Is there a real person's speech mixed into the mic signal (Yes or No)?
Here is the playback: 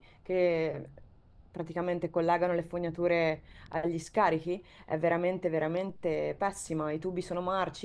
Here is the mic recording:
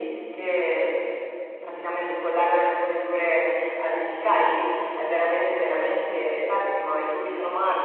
No